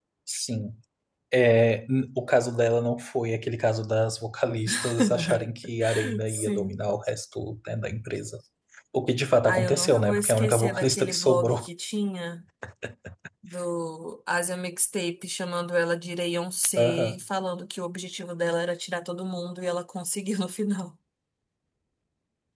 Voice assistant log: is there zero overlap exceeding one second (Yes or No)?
No